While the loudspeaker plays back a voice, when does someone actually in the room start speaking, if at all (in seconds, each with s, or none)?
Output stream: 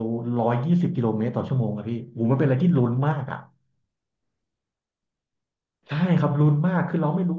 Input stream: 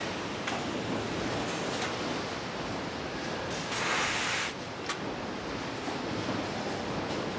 none